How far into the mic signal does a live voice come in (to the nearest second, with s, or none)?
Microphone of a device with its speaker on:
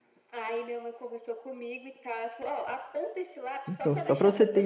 4 s